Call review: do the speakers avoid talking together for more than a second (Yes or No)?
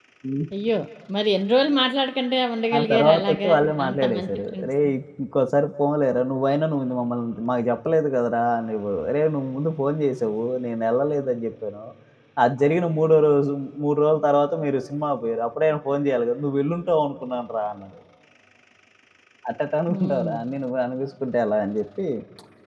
No